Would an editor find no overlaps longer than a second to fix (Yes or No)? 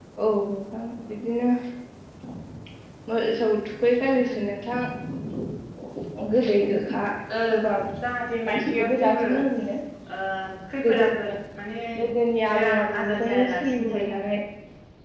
No